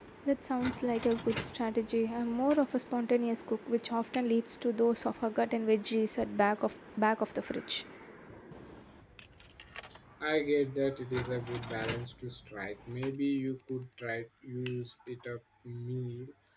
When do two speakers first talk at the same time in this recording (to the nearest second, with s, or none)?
none